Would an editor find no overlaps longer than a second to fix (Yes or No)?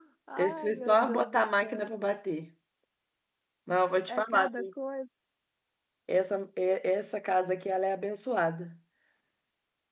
No